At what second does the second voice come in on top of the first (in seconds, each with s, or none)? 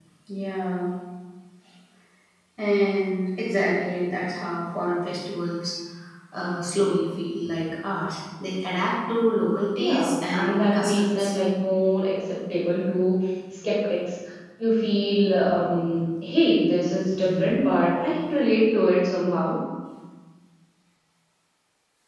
9.8 s